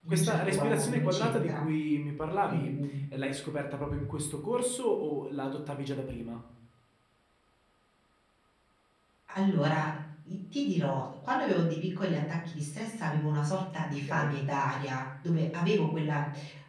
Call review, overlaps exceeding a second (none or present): present